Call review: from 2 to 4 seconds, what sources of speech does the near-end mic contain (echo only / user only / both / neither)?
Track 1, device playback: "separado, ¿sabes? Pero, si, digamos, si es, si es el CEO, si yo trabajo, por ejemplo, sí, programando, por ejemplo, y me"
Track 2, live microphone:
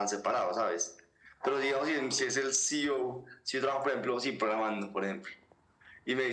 echo only